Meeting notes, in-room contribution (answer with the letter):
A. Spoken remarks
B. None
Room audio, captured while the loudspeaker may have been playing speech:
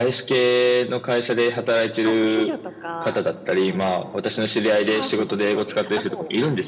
B